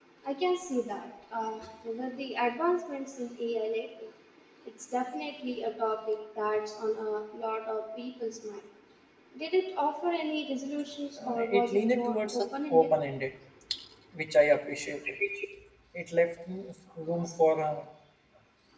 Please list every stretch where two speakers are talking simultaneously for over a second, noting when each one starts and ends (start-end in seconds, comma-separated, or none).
11.2-12.9